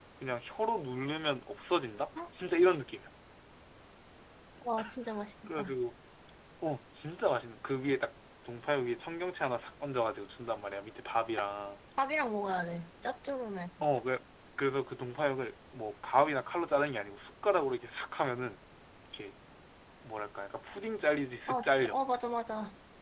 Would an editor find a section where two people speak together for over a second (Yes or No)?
No